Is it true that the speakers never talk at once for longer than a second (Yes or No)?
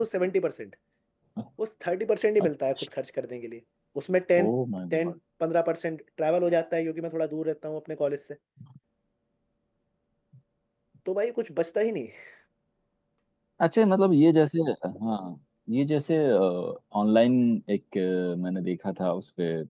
Yes